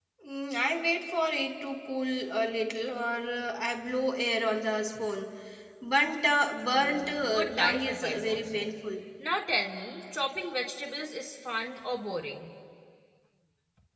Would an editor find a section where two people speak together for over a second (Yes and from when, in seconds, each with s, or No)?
Yes, from 6.7 s